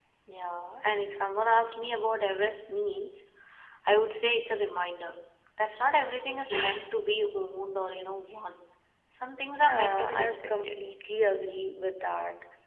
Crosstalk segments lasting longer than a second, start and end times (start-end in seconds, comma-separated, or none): 9.6-10.8